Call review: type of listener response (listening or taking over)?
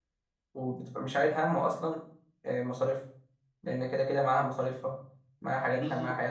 taking over